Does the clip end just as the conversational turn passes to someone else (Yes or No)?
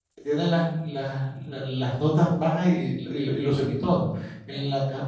No